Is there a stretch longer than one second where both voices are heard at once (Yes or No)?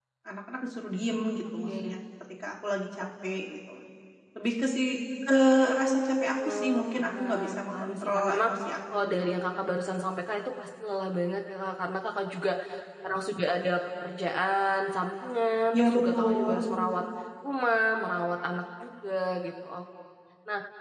Yes